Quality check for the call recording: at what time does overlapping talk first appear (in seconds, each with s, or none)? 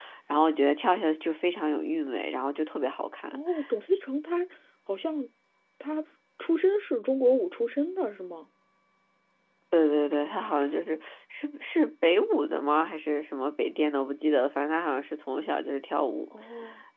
none